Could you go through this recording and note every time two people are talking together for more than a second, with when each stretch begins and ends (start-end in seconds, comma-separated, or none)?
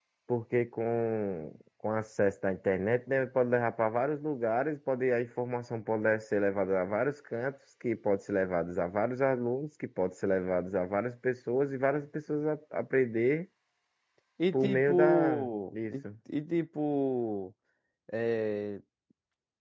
14.5-15.9